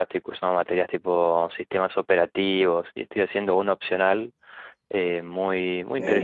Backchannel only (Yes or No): Yes